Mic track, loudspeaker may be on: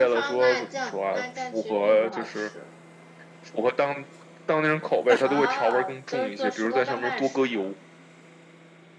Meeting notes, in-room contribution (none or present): present